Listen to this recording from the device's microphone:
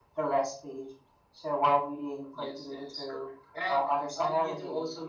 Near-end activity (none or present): none